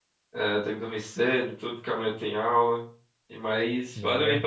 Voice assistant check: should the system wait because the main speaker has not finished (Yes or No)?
Yes